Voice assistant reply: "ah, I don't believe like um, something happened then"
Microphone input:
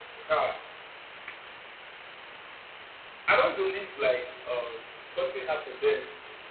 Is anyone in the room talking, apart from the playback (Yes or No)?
No